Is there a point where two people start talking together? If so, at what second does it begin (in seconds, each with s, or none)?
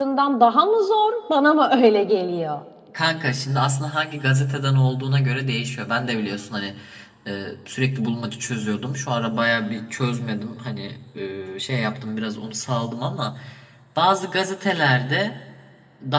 none